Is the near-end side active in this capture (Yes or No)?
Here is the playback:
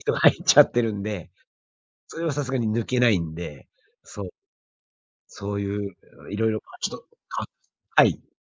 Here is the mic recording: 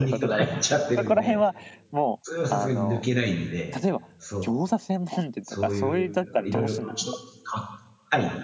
Yes